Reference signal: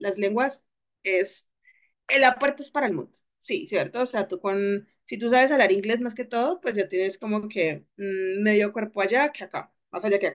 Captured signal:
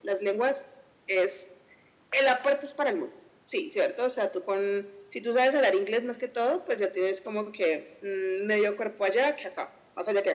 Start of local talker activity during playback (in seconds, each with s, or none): none